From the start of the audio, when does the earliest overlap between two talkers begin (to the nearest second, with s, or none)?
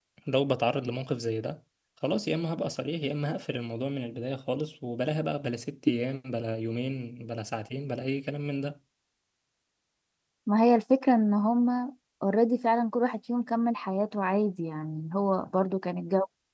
none